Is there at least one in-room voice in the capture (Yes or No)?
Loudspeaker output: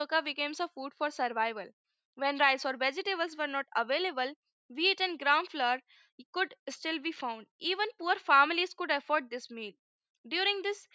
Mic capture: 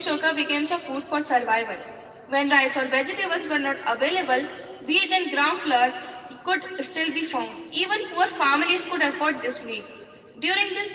No